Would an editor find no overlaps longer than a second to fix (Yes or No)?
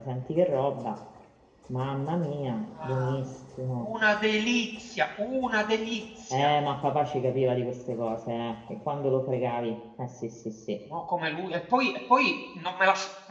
Yes